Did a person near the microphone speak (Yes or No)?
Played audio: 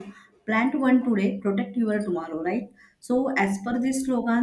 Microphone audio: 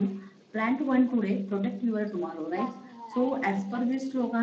Yes